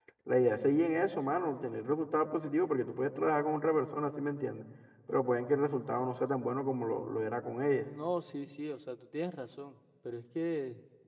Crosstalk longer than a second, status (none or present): none